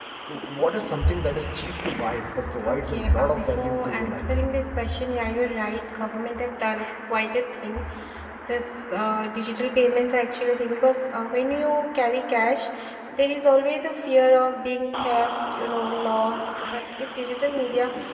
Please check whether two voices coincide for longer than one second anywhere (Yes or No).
Yes